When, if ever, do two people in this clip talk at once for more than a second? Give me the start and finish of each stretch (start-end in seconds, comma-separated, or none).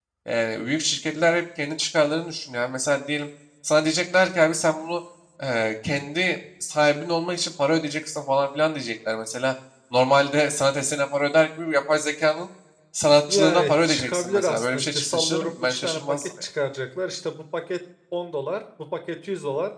13.3-16.3